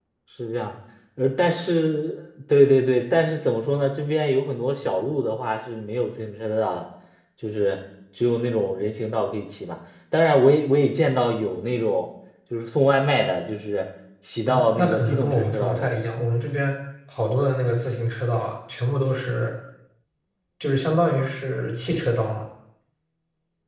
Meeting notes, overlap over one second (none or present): present